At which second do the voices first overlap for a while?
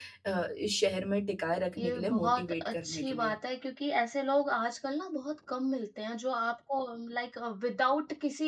2 s

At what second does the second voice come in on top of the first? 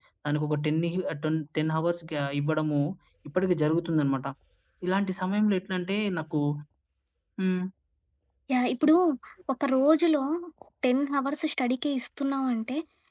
none

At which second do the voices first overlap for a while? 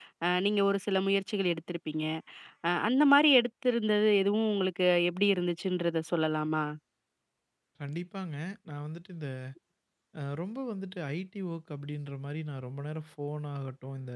none

